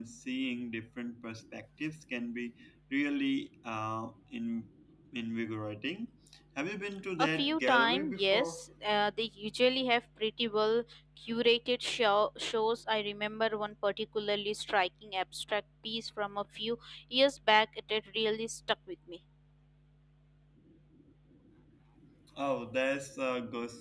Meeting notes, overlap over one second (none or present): present